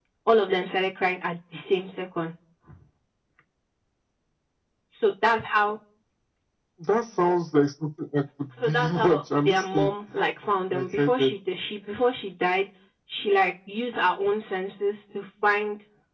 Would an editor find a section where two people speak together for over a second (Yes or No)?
Yes